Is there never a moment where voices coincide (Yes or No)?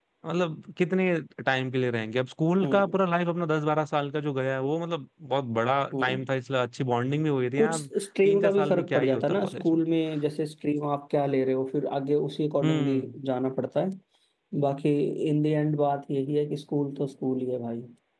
No